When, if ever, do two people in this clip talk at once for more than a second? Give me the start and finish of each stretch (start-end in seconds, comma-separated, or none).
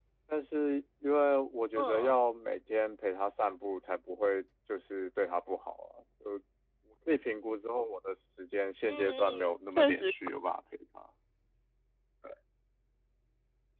8.9-10.1